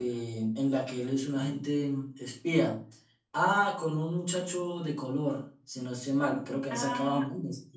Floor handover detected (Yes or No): Yes